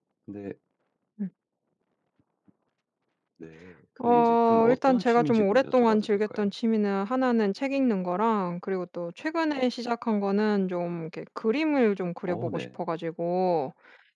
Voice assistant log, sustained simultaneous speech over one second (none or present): present